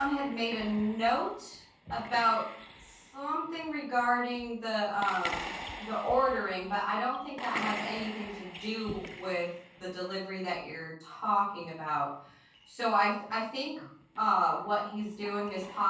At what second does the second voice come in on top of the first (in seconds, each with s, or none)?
none